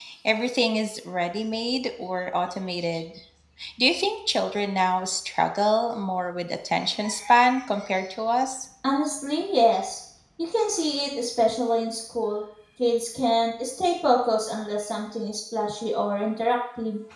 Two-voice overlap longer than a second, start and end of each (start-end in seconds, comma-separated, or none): none